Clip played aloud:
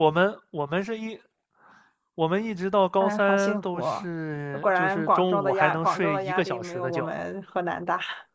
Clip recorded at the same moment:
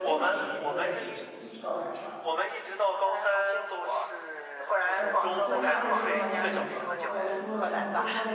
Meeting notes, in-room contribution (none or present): present